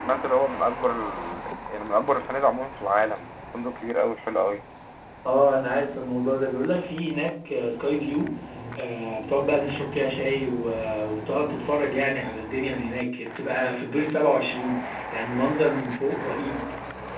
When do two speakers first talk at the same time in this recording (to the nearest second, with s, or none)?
none